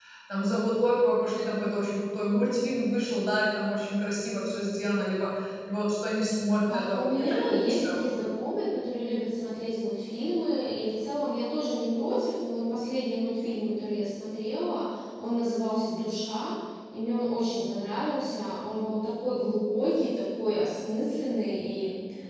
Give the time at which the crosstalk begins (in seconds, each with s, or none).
6.7 s